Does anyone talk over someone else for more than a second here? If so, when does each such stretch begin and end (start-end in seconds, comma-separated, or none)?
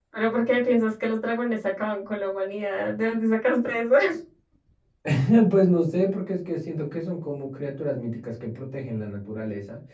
none